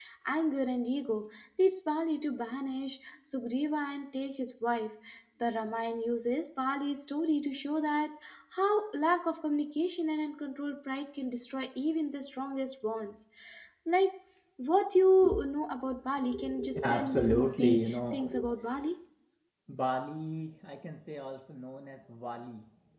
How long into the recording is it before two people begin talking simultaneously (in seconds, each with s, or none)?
16.8 s